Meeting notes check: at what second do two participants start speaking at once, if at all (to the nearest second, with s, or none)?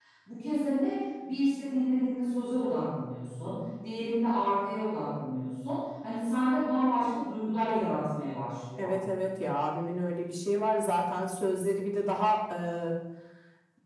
none